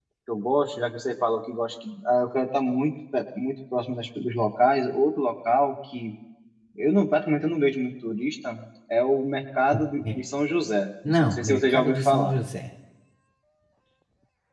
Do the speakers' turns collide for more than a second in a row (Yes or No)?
Yes